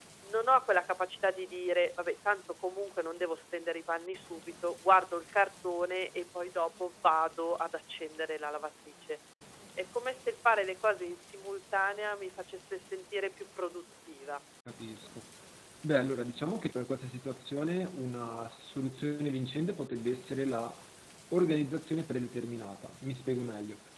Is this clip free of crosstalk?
Yes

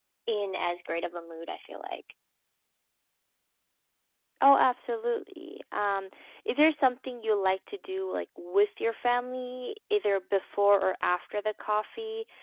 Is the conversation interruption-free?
Yes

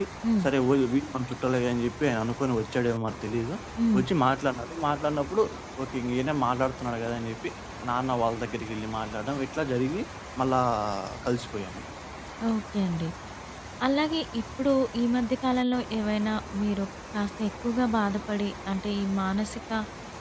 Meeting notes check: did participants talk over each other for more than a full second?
No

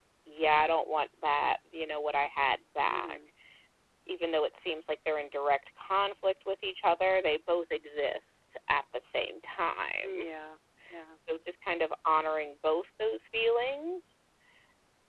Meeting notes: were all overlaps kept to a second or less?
Yes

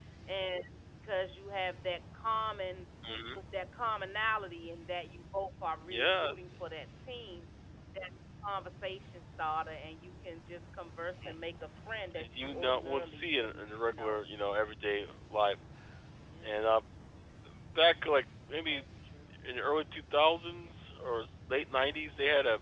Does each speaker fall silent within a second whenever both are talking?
No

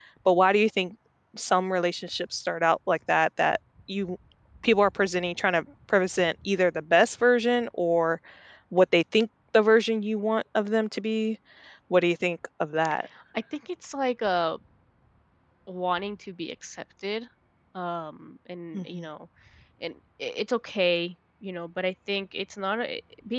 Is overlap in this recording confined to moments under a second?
Yes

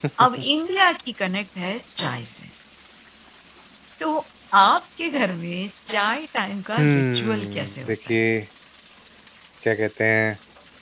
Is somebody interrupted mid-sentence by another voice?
Yes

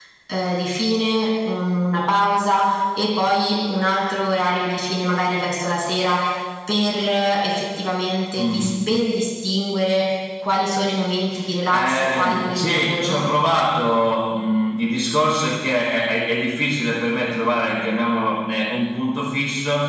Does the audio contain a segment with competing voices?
Yes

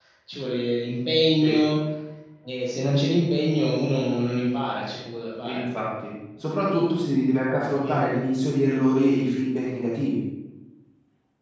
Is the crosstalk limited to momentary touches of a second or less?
Yes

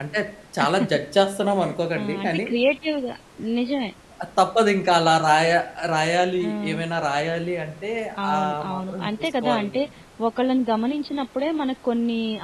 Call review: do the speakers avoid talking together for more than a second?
No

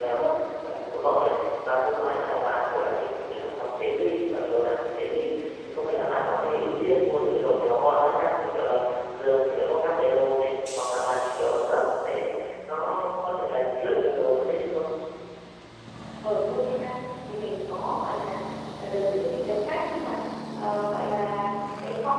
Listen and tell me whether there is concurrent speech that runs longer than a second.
No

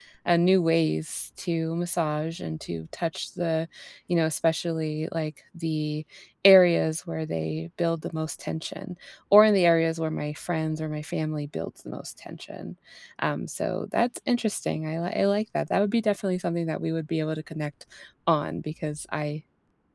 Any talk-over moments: No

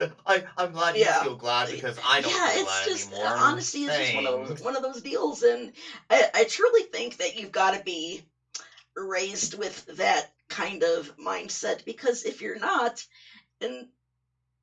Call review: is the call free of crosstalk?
No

